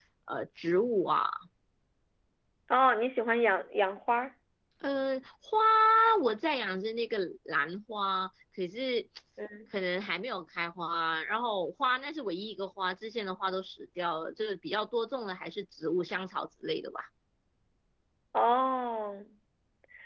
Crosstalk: none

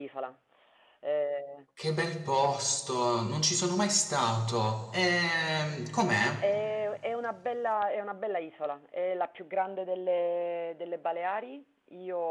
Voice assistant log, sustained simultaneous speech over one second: none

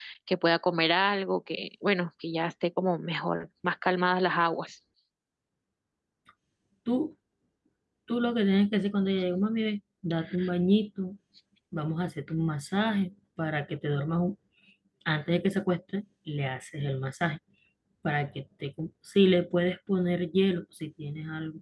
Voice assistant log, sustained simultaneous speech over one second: none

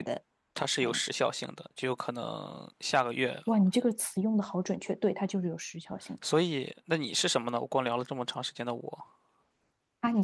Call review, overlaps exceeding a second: none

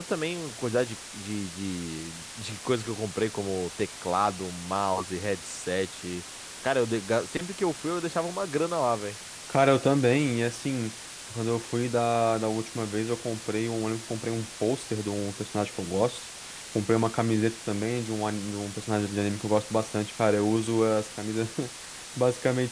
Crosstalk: none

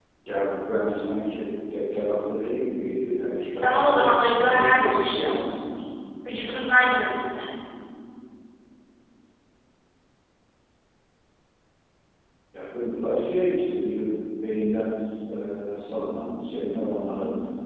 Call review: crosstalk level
present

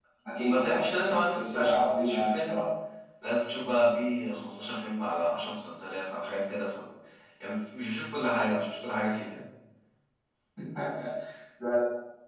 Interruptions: present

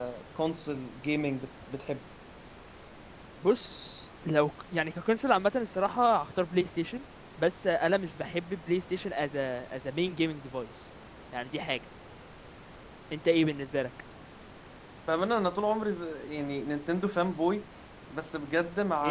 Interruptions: none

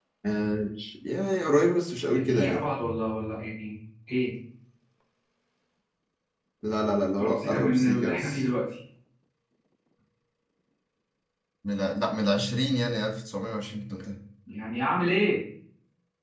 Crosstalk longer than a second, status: present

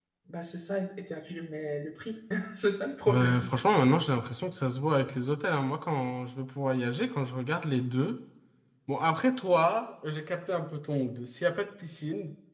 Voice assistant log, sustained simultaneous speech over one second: none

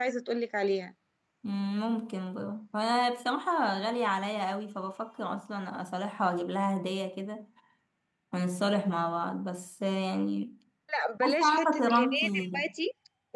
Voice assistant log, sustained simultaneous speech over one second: present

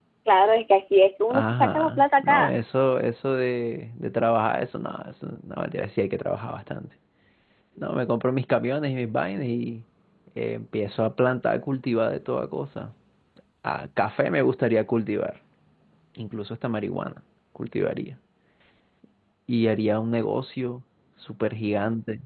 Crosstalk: present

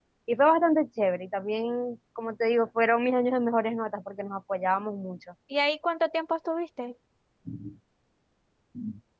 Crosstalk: none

